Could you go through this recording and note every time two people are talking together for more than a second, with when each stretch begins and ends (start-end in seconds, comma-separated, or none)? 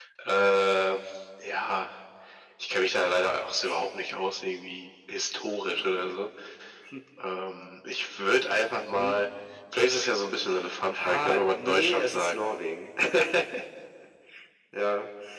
10.9-12.4